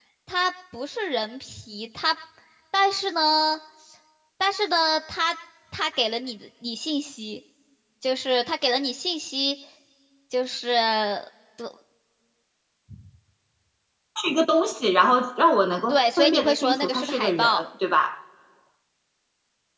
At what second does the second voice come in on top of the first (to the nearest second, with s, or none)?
16 s